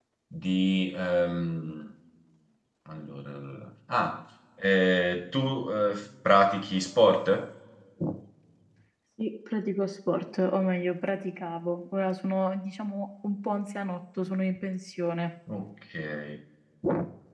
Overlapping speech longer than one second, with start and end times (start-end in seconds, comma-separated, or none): none